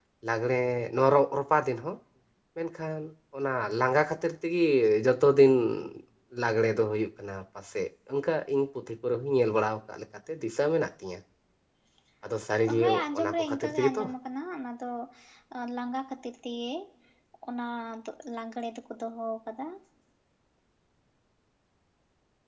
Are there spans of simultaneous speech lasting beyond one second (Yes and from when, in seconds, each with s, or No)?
Yes, from 12.8 s